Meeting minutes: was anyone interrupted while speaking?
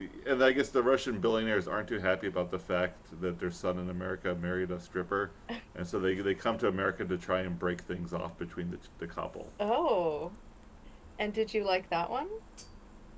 No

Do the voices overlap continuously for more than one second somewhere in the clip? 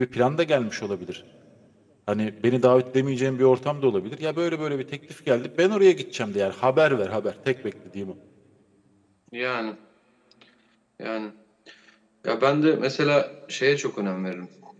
No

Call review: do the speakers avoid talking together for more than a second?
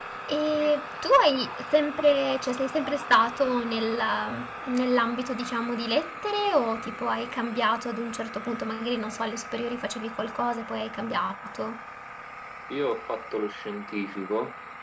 Yes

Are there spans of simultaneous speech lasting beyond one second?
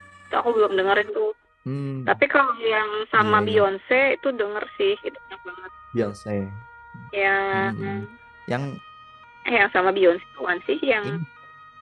No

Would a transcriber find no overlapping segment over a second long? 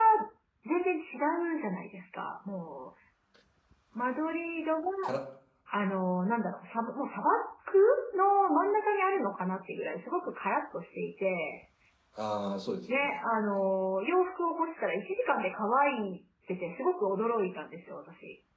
Yes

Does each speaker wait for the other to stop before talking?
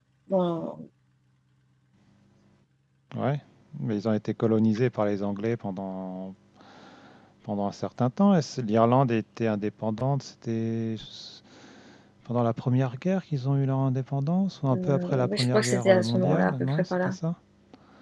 No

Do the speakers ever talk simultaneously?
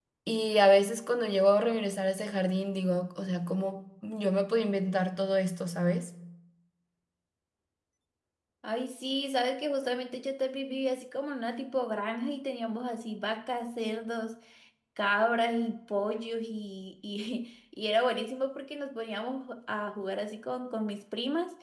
No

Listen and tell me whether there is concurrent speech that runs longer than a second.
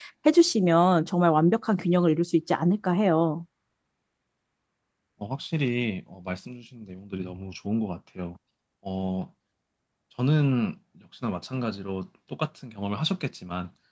No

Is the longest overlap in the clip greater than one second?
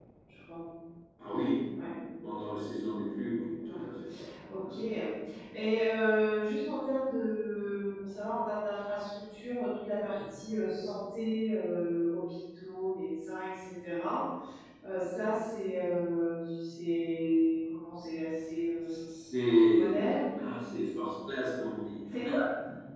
No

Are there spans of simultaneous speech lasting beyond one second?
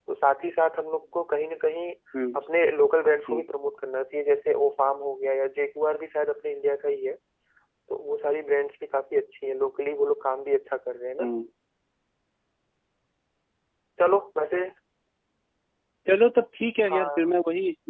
No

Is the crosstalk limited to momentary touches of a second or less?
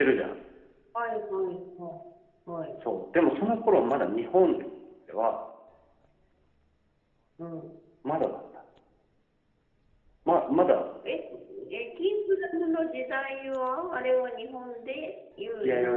Yes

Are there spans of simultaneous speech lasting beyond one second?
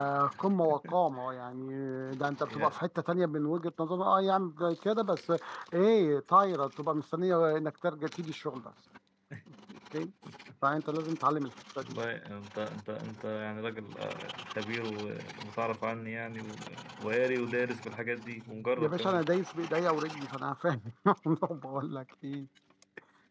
No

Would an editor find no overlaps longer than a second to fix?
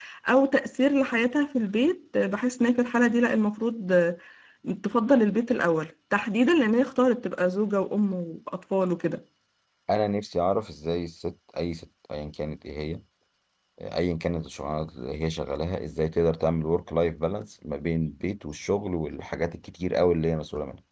Yes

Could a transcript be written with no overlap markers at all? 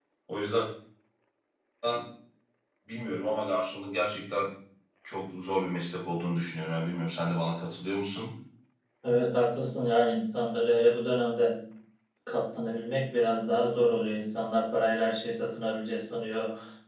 Yes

